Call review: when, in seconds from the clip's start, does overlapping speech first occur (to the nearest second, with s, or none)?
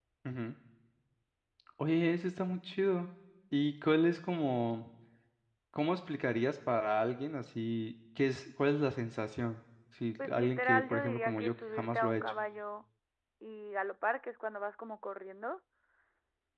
10 s